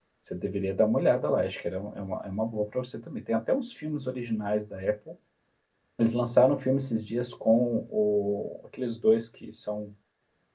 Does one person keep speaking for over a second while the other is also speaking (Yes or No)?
No